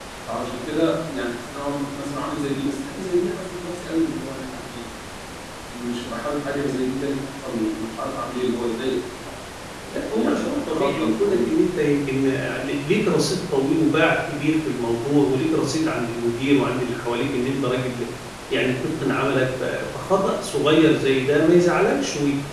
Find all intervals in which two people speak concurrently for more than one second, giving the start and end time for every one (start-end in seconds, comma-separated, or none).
10.1-11.6